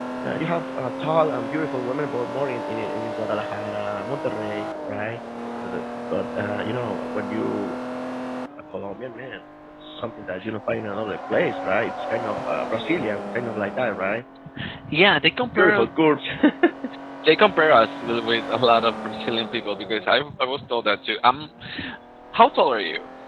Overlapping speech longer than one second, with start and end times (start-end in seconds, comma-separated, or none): none